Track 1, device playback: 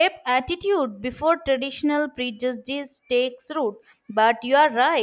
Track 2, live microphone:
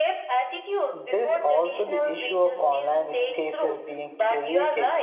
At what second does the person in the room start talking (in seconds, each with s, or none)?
0.9 s